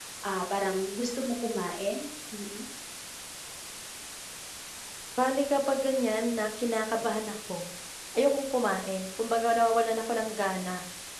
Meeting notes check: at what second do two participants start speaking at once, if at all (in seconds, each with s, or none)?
none